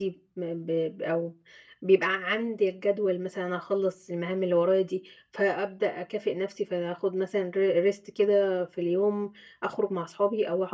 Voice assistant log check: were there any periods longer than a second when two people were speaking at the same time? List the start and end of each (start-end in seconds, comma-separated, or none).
none